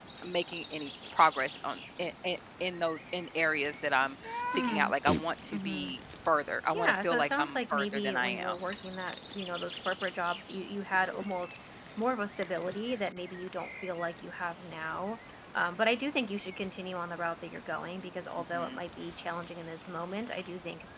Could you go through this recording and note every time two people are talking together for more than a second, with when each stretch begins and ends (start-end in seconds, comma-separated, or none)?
6.7-8.6